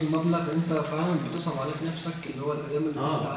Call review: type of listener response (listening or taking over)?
listening